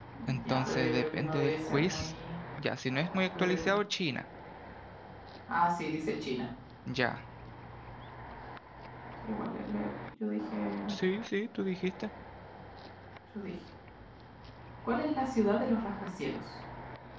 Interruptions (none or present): present